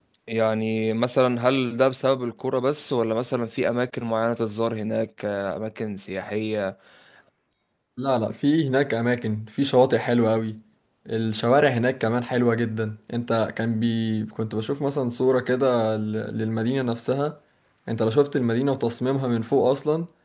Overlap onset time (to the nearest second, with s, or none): none